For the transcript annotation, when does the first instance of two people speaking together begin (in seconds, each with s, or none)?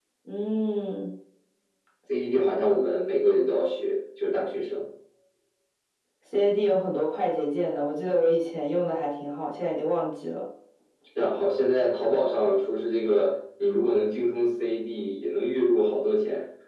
none